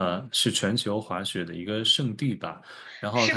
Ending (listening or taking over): taking over